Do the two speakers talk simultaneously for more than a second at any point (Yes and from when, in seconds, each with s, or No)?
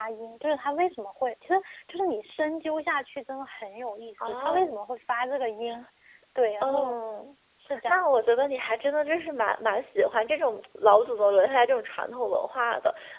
No